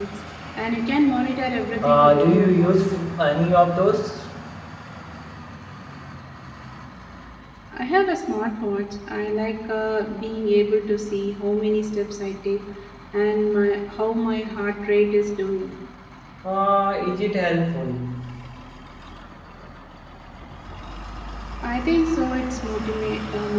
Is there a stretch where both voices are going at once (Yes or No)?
Yes